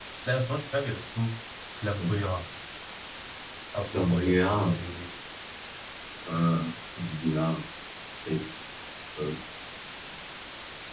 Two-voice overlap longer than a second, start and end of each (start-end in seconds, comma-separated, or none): 3.9-5.1